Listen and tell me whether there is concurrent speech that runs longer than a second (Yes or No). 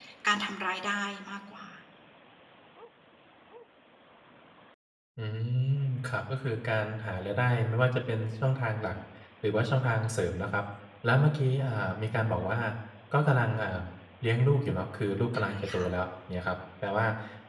No